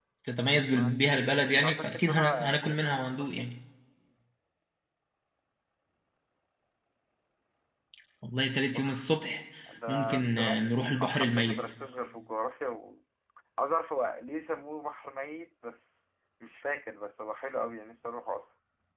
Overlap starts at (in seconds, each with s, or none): 0.6 s